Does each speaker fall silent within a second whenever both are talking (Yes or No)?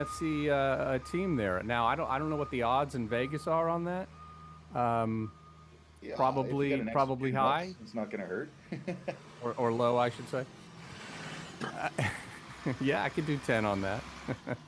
No